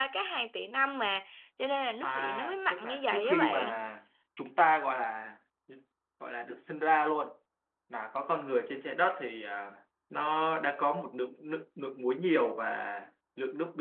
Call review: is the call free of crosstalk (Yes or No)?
No